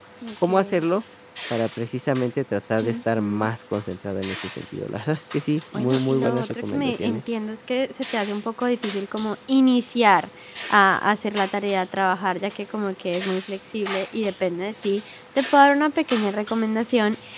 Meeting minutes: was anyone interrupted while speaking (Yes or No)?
Yes